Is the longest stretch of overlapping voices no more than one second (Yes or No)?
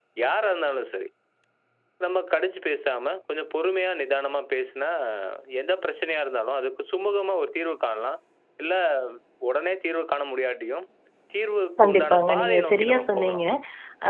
No